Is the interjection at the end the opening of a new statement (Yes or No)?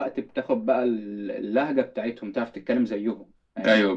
Yes